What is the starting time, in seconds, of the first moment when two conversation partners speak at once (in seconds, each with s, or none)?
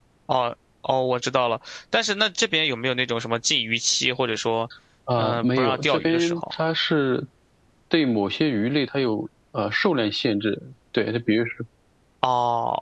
5.2 s